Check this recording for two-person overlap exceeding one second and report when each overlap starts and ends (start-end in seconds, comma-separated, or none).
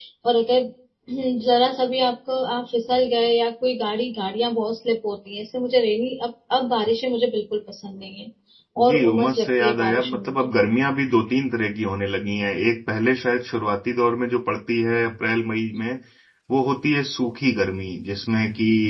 8.9-10.5